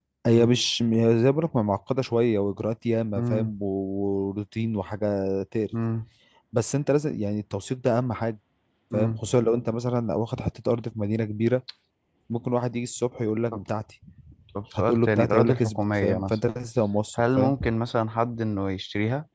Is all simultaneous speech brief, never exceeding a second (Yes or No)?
No